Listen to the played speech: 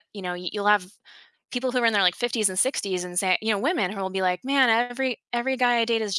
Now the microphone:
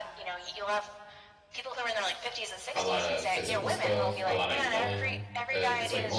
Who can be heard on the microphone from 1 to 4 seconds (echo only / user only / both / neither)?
both